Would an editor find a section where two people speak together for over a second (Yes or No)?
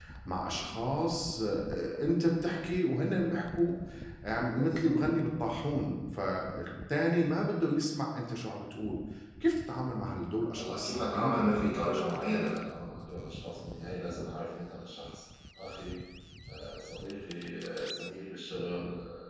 Yes